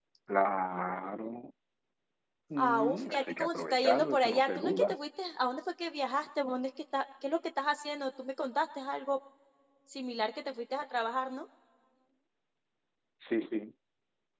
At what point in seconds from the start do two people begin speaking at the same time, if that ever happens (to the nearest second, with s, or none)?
3 s